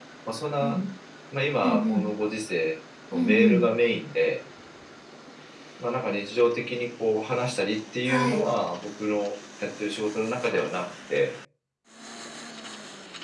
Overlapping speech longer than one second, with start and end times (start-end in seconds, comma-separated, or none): none